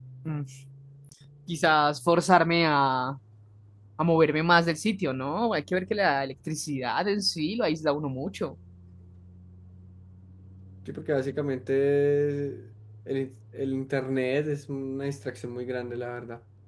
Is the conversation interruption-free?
Yes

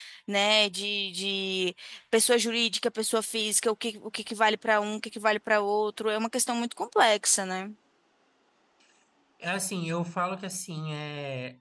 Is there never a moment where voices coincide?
Yes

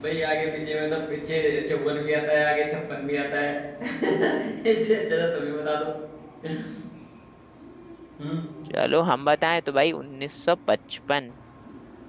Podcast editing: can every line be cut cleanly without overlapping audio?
Yes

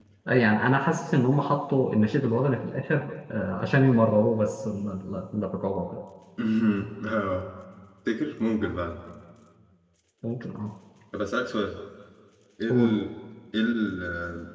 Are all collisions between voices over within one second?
Yes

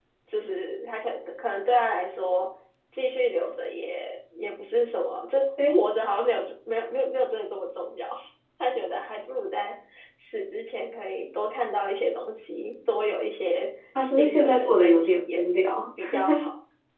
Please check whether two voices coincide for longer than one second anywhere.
Yes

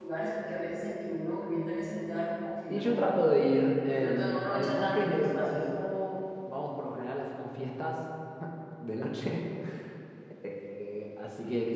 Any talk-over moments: Yes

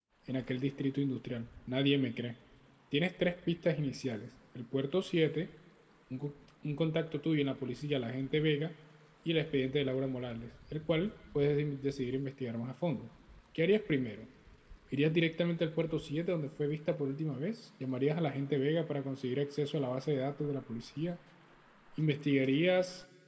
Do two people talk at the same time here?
No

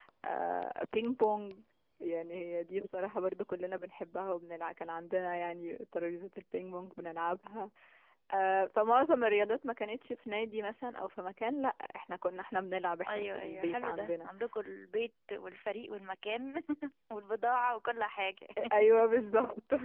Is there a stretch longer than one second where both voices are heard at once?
Yes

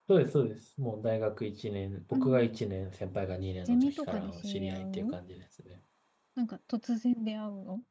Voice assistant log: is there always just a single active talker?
No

